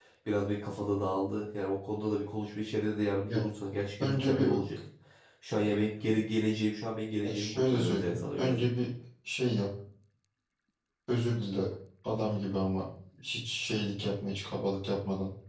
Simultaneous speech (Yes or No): Yes